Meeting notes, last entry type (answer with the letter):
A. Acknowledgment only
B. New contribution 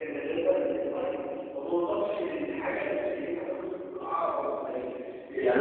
A